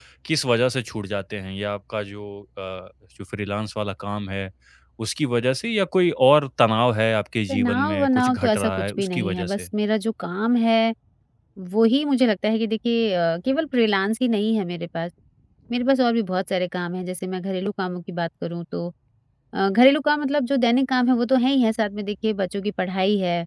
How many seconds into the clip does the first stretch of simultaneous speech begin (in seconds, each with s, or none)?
7.5 s